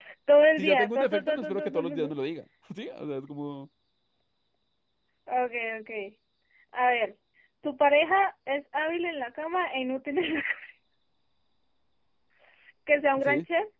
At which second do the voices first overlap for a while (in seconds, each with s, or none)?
0.6 s